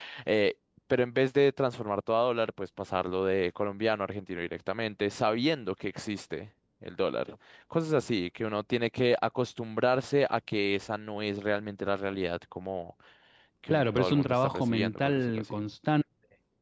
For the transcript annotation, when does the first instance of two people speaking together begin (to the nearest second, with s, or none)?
14 s